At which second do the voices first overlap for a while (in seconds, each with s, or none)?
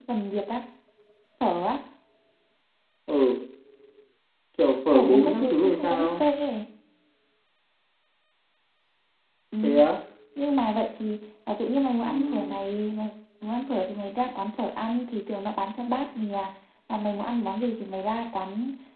4.9 s